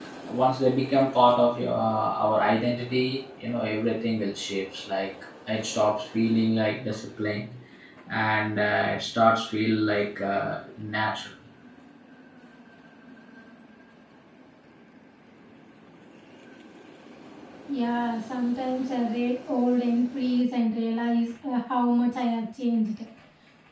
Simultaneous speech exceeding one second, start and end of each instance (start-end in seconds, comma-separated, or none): none